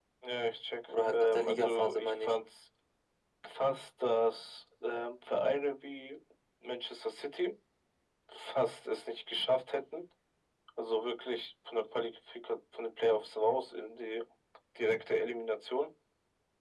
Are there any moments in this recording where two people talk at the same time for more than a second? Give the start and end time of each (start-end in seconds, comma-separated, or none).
1.1-2.4